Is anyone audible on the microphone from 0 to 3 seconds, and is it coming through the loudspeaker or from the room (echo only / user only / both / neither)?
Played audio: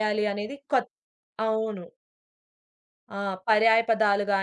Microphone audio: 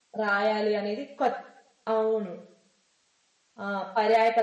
echo only